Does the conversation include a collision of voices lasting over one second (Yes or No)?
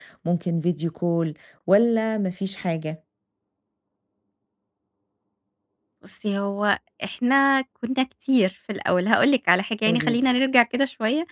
No